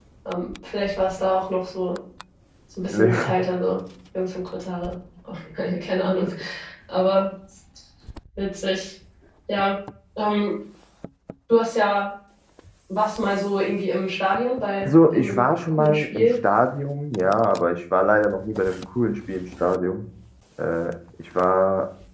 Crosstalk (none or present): present